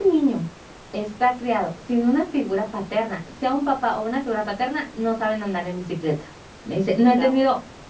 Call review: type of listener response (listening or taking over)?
listening